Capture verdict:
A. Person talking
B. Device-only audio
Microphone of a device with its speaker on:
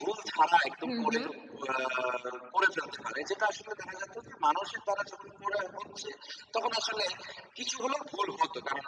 A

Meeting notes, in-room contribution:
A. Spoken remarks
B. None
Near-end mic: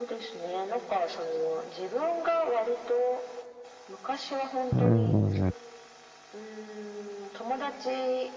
A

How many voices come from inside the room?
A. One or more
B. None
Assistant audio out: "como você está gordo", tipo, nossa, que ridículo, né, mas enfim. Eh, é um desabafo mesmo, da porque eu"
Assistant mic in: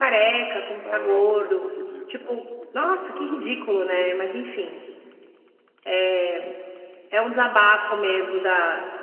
A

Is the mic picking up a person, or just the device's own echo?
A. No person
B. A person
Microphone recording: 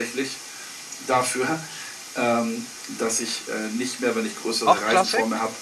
B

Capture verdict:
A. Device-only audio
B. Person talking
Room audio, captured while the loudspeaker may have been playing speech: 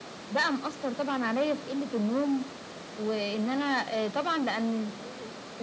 A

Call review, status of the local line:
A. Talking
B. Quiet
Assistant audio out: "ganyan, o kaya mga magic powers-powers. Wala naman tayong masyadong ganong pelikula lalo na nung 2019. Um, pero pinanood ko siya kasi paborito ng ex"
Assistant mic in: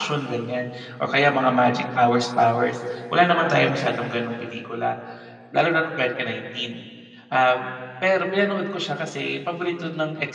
B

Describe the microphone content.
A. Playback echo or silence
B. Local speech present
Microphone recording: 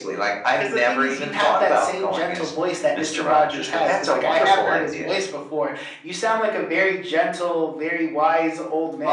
A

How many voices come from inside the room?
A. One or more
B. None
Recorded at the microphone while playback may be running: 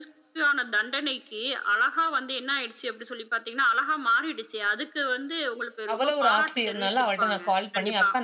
A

